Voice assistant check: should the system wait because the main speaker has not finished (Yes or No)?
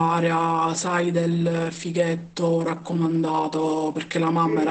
Yes